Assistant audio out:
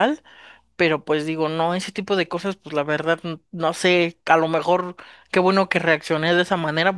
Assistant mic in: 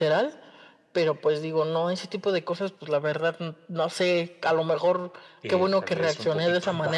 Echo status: present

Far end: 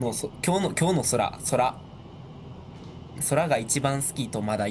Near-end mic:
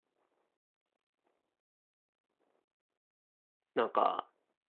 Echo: none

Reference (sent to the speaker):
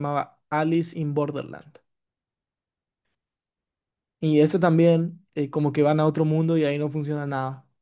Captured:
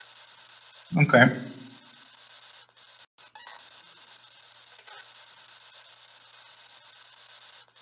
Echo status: none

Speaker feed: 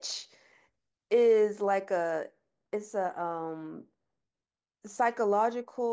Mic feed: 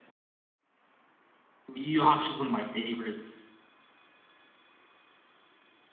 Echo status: none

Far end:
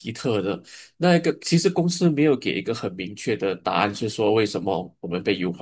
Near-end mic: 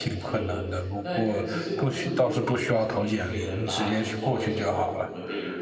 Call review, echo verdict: present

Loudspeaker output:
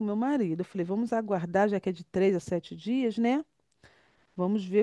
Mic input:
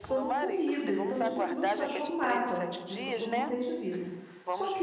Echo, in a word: present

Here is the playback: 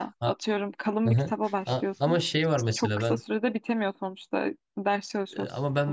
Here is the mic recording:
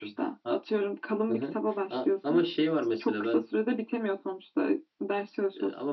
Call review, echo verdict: present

